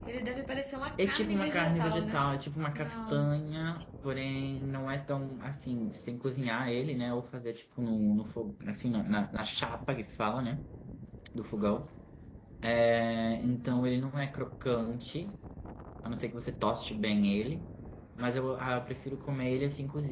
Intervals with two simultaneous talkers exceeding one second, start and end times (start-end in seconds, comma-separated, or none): 1.0-2.3